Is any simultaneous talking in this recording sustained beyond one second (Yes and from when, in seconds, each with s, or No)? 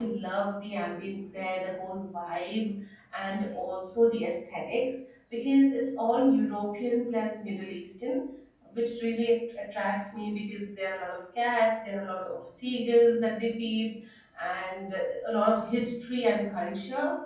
No